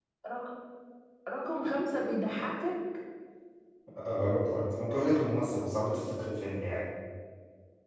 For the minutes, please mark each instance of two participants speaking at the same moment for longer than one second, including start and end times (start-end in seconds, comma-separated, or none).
none